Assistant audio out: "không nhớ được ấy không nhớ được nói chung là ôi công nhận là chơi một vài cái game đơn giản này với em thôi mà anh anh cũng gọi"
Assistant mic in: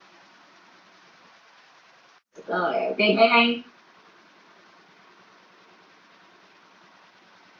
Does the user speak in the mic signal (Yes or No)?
Yes